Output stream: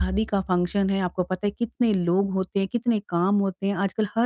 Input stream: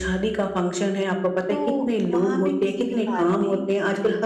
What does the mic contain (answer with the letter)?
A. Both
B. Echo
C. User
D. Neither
A